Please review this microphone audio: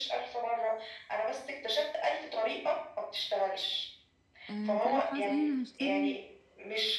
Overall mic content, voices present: both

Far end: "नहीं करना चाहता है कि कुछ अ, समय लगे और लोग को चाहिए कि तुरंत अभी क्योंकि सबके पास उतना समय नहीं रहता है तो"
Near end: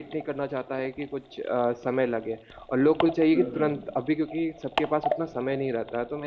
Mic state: both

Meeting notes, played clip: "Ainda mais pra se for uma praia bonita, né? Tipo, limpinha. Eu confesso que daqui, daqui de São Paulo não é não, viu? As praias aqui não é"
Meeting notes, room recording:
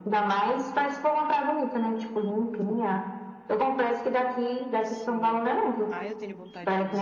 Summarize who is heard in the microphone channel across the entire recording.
both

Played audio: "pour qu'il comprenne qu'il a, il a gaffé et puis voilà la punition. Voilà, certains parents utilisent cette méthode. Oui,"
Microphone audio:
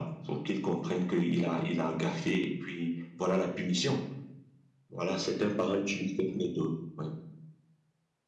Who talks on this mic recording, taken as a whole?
echo only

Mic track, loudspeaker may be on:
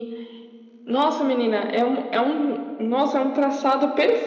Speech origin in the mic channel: echo only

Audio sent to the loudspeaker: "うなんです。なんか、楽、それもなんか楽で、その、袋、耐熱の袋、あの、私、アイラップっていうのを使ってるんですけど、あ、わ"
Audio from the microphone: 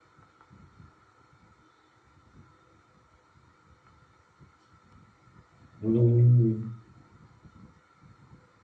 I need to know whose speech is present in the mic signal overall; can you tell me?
user only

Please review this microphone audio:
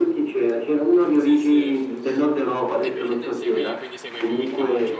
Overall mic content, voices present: both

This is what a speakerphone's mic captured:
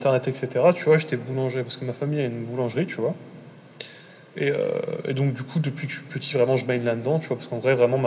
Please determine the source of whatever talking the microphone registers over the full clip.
echo only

